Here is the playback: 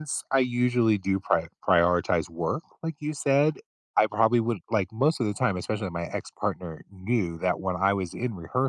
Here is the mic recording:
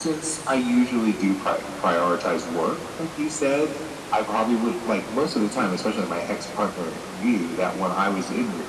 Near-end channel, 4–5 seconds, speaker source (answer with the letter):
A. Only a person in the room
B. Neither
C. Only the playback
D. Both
C